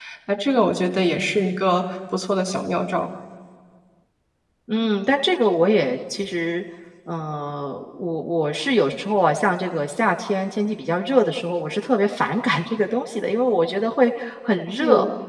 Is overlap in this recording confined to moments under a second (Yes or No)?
Yes